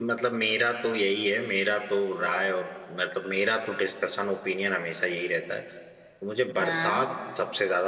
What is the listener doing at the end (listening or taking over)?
listening